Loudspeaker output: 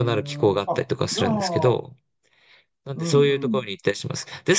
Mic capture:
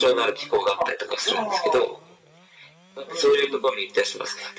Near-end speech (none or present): none